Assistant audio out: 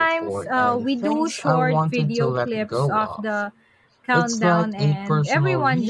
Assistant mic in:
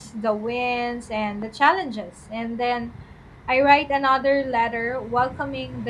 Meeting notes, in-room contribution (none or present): present